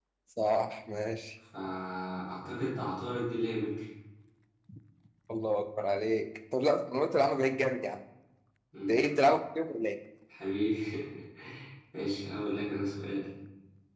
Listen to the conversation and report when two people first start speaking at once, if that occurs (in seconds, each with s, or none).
none